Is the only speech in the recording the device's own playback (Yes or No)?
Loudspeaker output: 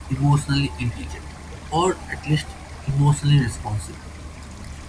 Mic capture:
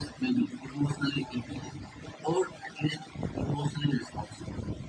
Yes